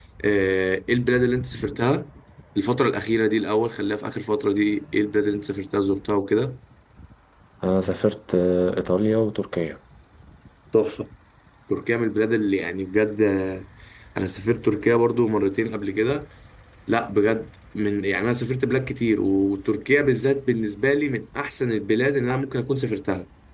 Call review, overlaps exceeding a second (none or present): none